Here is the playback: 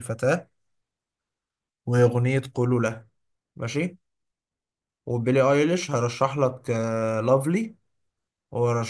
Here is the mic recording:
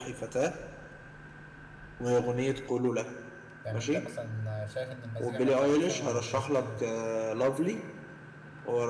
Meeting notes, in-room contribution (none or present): present